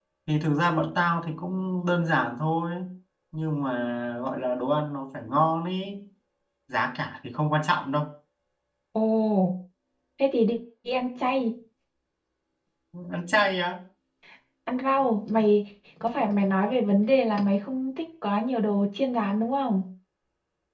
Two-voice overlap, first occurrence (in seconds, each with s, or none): none